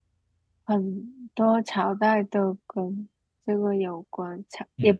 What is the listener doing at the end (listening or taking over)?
taking over